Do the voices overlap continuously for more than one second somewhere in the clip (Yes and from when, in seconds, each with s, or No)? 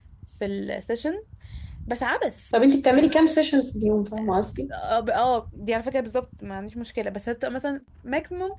No